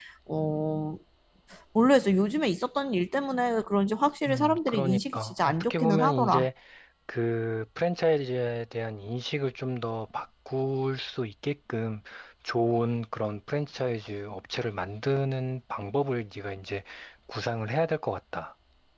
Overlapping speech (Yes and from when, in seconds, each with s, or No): Yes, from 4.2 s